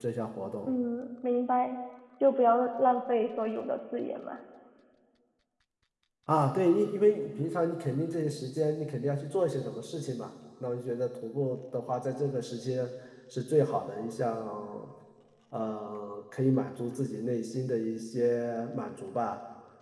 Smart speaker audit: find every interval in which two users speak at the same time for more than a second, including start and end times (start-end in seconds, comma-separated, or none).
none